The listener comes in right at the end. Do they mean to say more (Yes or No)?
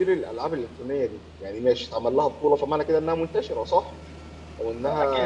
Yes